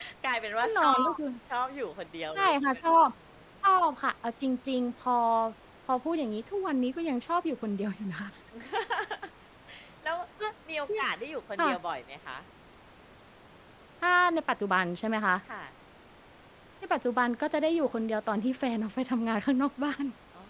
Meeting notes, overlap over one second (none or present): none